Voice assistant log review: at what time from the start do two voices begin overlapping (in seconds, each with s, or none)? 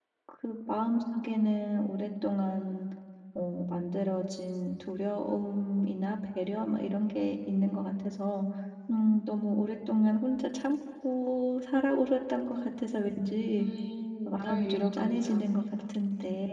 14.2 s